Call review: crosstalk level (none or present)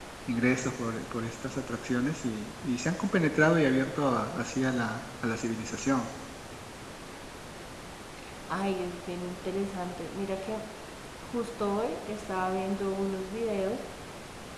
none